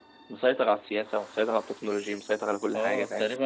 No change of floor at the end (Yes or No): No